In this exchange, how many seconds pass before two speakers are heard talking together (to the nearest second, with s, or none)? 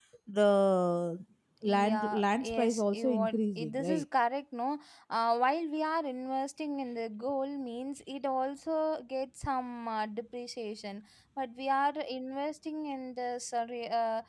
2 s